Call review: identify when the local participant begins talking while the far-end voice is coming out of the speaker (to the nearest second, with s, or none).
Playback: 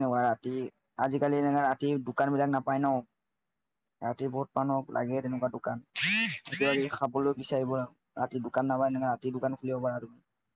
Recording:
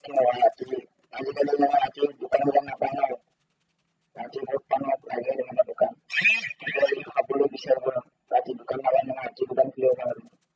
none